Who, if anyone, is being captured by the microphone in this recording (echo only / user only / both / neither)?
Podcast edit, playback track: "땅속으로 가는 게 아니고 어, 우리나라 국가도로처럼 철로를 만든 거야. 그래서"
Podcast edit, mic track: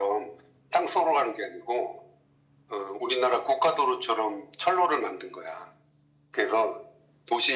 echo only